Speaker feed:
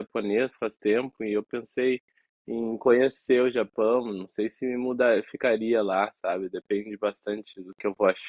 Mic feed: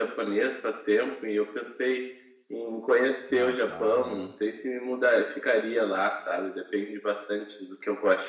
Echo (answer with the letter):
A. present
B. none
A